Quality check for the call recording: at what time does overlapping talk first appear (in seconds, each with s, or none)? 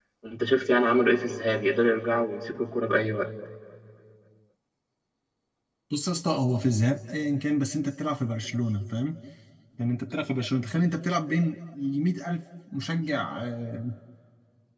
none